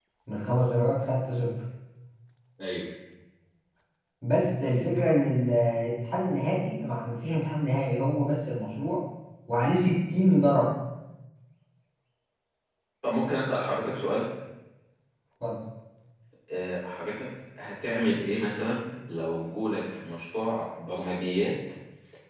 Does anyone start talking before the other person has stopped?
No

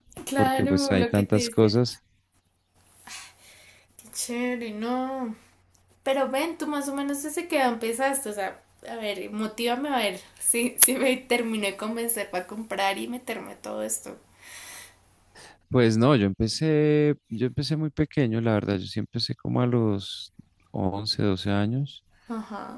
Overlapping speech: Yes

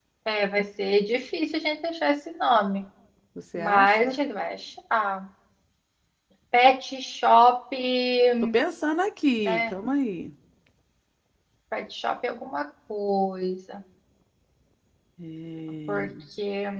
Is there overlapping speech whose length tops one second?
No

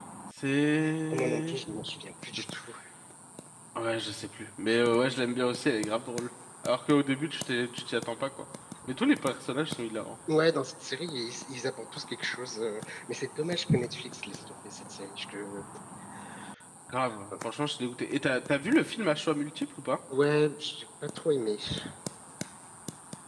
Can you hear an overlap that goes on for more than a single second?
No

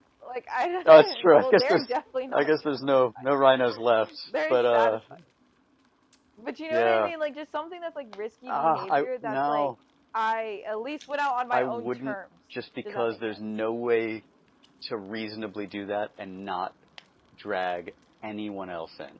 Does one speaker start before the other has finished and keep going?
Yes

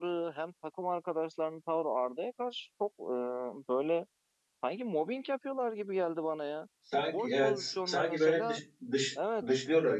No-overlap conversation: No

